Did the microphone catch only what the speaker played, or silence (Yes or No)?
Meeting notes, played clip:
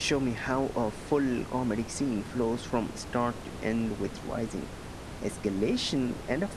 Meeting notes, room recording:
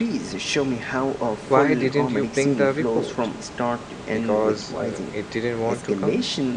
No